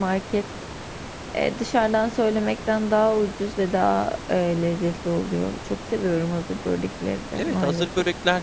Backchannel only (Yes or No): No